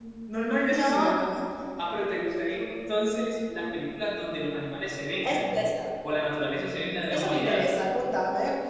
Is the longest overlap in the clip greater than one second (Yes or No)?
No